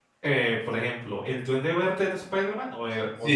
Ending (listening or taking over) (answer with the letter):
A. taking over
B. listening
A